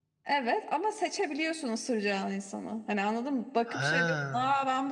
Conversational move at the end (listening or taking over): listening